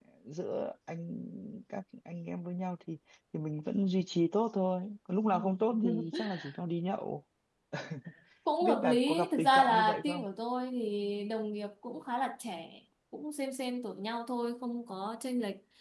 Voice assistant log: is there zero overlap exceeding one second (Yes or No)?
No